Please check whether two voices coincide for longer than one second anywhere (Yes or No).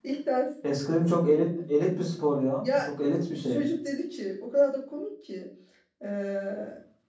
No